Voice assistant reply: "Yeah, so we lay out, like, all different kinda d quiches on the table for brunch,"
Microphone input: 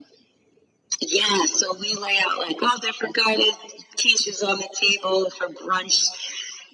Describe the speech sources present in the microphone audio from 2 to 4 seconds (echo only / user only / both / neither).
echo only